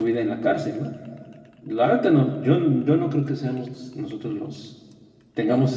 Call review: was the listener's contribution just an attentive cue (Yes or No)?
Yes